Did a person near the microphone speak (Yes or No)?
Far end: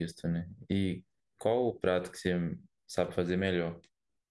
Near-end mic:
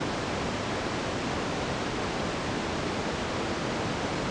No